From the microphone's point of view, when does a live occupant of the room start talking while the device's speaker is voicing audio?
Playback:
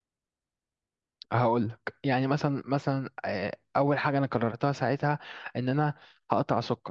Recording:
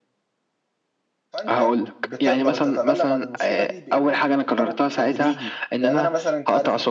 1.3 s

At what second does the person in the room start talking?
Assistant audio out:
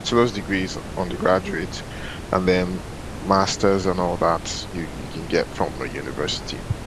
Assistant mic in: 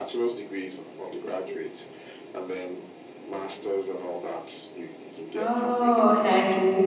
5.3 s

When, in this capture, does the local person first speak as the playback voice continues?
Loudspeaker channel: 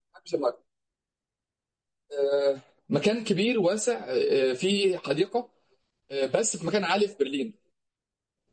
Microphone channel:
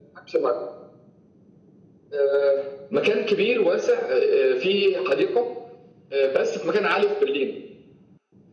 none

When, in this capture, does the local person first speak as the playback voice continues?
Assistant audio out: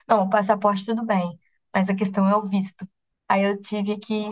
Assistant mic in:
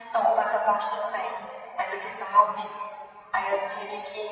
none

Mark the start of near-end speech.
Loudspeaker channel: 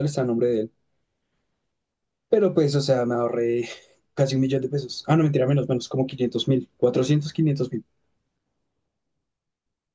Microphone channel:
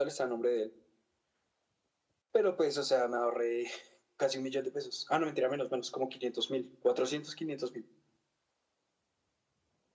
none

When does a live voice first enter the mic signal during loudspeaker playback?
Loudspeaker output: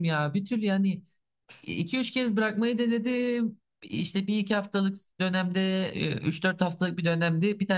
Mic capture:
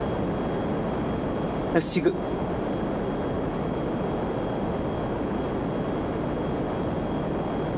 1.7 s

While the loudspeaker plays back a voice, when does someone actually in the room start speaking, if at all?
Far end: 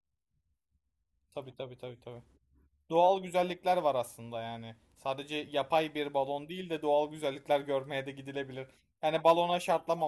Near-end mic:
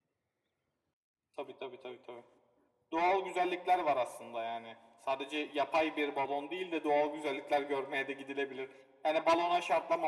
none

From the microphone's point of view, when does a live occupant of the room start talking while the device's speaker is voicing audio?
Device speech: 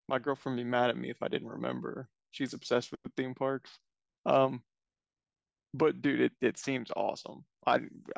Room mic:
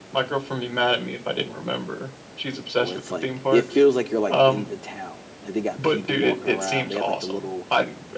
2.8 s

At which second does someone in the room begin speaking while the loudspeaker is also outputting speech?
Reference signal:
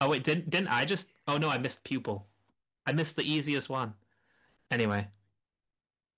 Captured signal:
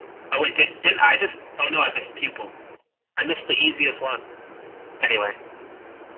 none

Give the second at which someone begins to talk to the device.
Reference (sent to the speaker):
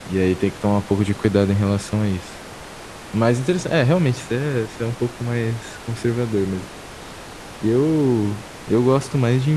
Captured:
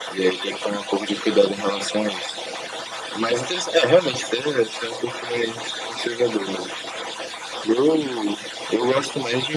none

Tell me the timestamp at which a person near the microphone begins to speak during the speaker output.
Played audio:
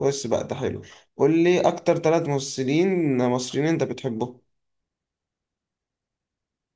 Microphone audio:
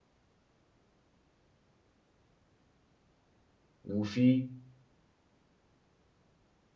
3.8 s

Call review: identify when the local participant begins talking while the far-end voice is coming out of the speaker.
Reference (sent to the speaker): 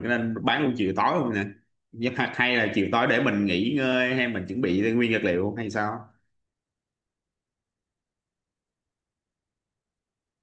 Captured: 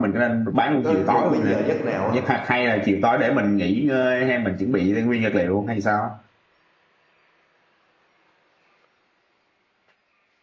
0.8 s

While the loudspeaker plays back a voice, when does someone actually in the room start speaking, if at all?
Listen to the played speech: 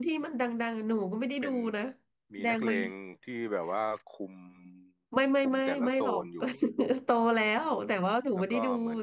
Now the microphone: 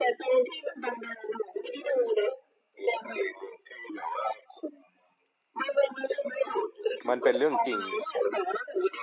7.1 s

